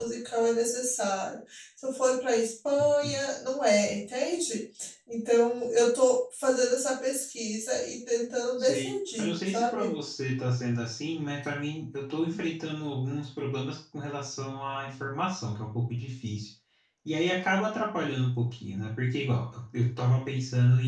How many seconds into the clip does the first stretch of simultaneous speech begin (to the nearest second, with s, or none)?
9 s